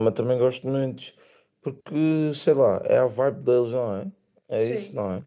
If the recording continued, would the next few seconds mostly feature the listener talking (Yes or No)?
Yes